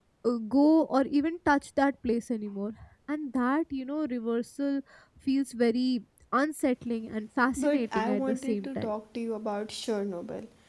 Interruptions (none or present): present